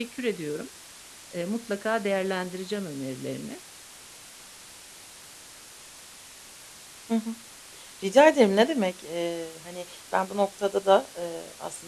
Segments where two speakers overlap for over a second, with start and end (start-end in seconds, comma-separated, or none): none